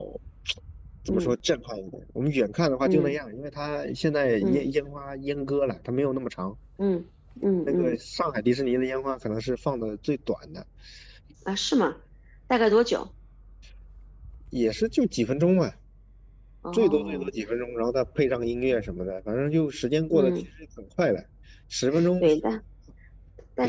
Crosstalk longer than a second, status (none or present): none